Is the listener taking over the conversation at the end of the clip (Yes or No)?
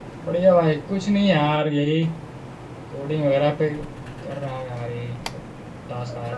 Yes